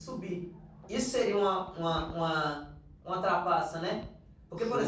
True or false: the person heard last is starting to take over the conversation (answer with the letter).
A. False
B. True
B